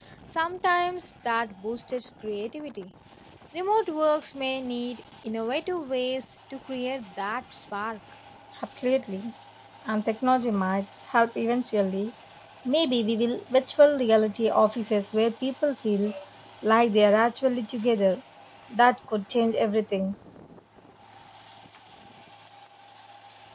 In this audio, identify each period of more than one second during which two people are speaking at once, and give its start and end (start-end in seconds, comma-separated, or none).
none